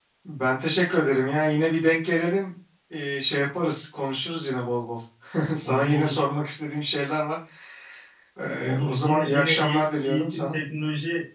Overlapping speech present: Yes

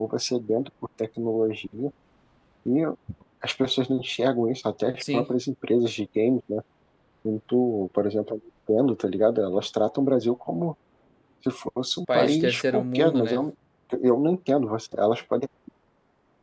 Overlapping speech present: Yes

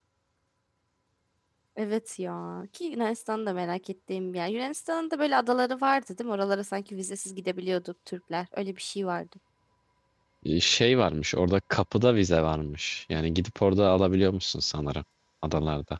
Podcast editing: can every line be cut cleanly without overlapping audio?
Yes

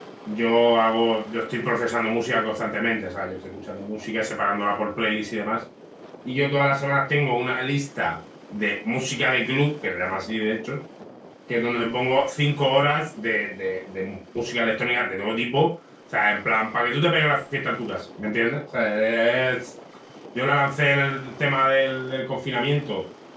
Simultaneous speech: No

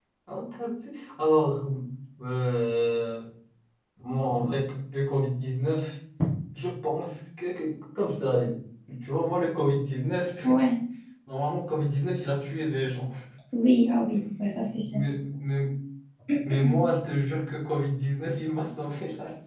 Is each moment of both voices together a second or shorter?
Yes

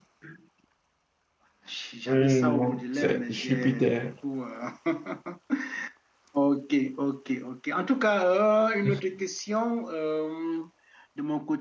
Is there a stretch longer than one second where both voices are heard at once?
Yes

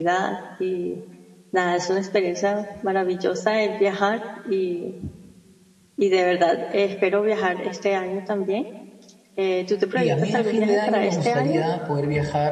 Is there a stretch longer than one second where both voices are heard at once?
Yes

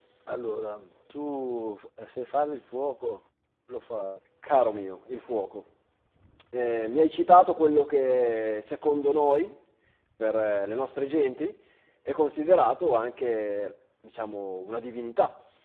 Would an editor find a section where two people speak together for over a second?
No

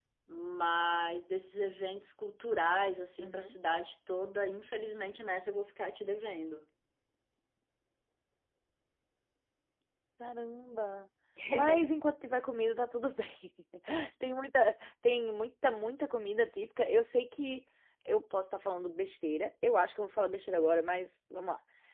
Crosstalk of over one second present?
No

